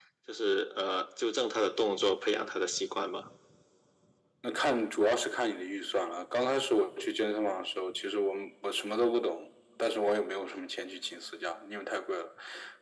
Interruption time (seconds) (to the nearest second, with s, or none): none